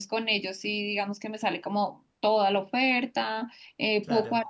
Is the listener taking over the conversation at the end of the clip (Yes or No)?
No